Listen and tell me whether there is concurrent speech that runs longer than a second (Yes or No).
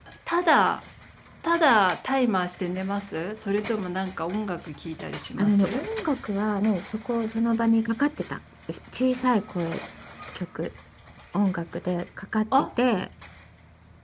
No